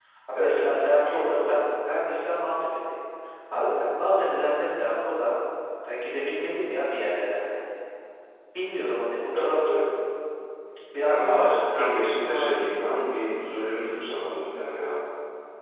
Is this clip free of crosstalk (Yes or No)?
No